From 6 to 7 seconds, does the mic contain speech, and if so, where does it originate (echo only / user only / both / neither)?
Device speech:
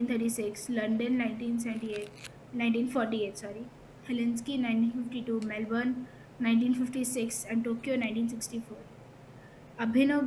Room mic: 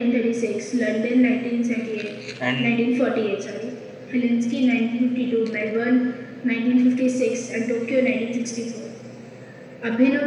echo only